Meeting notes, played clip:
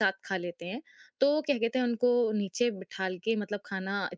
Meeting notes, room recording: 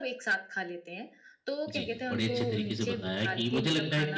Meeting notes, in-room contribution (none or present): present